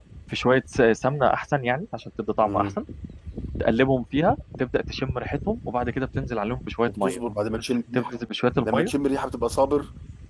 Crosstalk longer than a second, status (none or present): none